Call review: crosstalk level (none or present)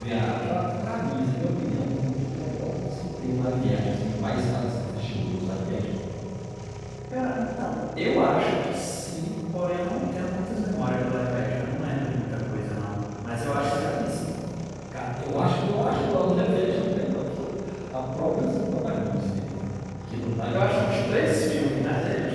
present